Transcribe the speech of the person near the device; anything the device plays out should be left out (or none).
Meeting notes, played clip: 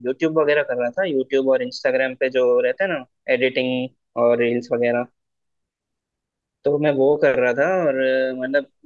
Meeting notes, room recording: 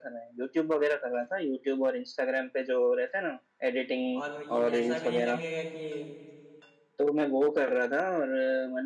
और ये ऐसा भी नहीं लगेगा कि